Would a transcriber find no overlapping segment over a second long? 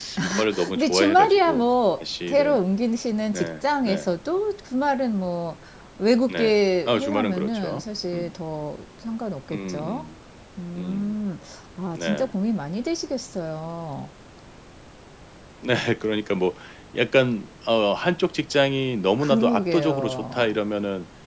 No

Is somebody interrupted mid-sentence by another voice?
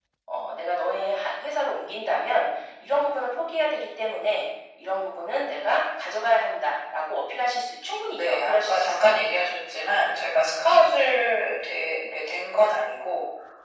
Yes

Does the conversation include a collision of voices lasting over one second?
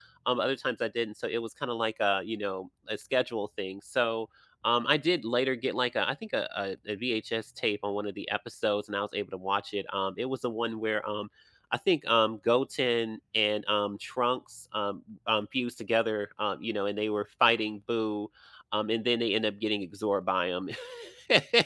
No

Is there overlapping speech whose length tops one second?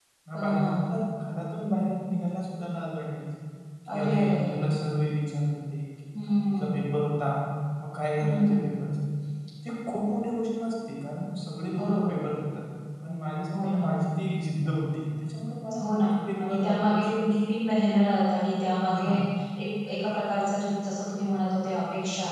Yes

